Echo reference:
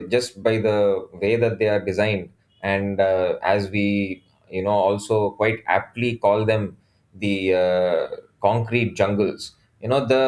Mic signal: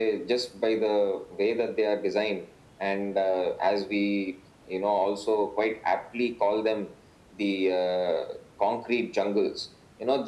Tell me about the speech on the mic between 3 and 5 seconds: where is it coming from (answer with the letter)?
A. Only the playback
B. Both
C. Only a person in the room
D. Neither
A